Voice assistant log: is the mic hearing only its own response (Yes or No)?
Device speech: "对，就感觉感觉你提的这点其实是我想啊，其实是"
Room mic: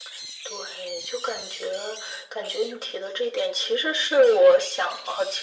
Yes